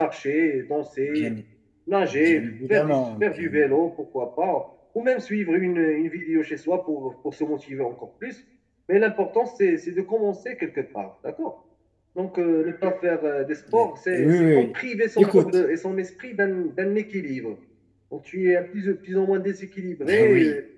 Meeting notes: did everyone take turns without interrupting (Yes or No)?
No